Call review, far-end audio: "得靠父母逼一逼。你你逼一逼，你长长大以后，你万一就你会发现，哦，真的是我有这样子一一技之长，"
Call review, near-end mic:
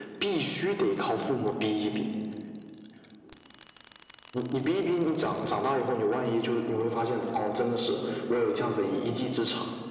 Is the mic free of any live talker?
Yes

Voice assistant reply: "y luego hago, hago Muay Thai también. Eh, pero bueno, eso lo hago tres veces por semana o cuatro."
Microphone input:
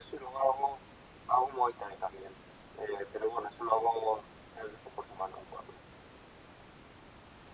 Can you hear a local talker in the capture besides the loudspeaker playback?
No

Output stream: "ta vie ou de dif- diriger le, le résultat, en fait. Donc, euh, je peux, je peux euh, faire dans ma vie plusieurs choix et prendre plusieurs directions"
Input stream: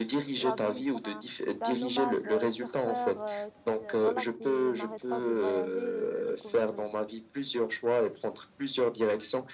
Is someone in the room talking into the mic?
Yes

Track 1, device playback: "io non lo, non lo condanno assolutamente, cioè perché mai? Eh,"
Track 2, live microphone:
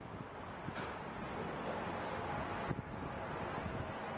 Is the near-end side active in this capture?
No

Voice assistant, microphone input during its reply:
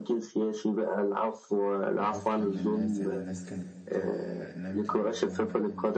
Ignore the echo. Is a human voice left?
Yes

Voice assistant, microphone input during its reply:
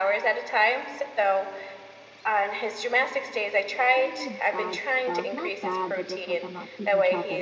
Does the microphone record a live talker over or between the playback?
Yes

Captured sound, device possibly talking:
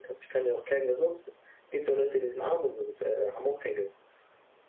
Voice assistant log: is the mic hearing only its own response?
Yes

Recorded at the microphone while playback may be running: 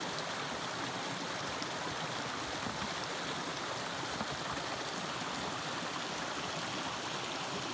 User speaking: No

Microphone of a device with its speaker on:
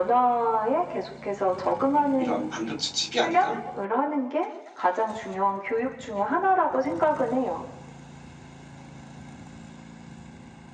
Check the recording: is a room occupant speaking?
Yes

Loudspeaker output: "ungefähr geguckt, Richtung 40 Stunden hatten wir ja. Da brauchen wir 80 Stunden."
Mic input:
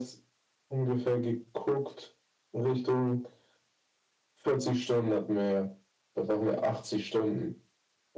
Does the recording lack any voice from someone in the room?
Yes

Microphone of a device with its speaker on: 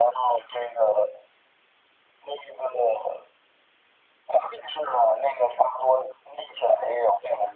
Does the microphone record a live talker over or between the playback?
No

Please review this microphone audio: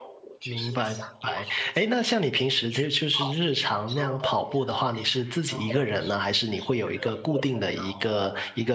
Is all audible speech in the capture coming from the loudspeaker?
No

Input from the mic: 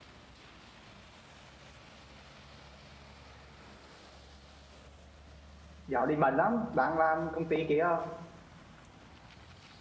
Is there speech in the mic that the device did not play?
Yes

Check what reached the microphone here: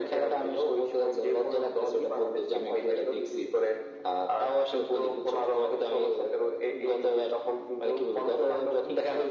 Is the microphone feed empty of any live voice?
Yes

